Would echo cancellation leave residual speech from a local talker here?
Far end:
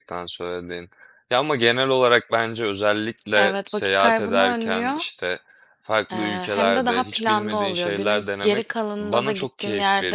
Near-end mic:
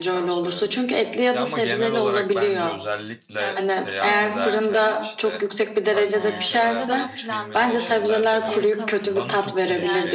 Yes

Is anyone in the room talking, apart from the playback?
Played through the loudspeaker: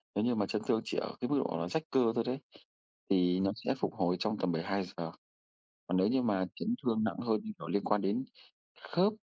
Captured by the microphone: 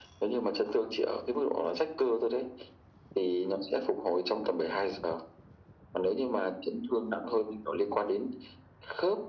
No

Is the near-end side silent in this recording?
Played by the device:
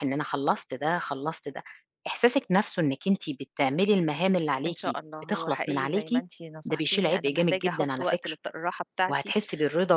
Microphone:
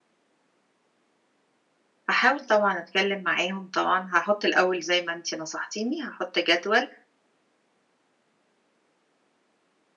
No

